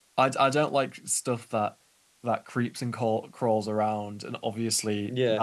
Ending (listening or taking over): listening